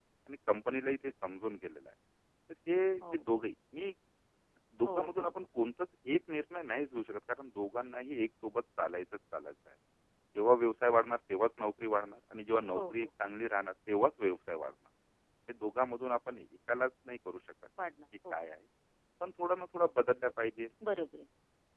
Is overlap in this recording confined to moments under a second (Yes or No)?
Yes